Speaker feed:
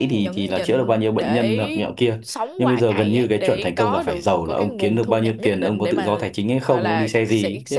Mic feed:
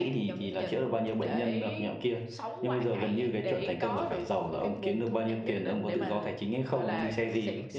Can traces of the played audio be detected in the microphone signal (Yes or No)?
Yes